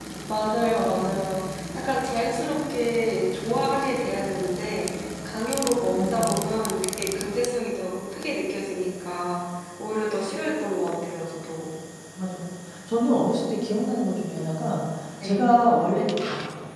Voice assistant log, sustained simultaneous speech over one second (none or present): none